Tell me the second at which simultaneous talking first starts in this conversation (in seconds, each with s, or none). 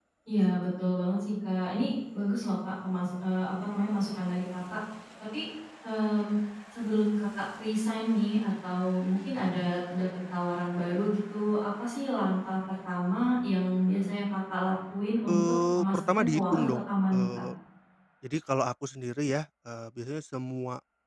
15.3 s